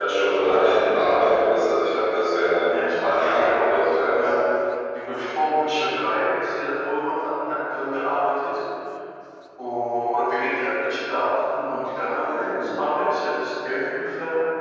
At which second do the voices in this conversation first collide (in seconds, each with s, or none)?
2.6 s